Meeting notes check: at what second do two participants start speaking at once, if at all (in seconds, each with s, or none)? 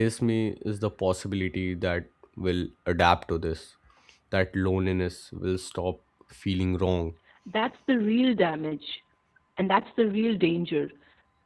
none